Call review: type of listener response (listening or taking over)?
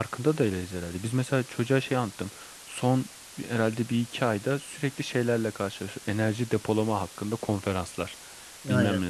listening